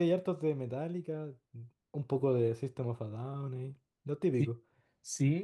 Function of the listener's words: taking over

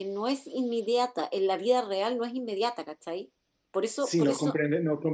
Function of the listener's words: taking over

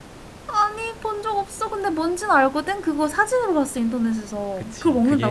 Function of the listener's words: taking over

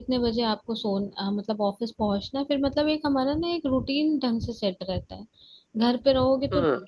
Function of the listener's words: listening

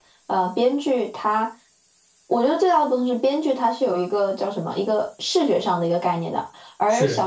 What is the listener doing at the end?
listening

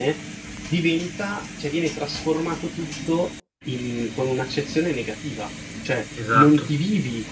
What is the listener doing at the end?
listening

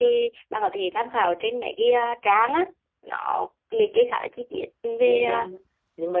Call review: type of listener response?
taking over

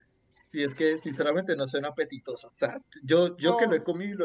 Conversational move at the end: listening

